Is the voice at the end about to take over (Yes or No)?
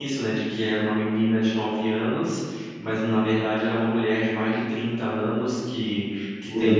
No